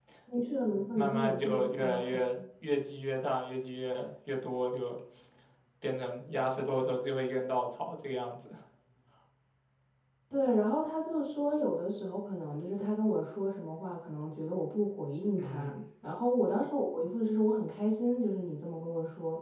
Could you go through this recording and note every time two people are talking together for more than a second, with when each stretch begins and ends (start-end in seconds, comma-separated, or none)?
1.0-2.2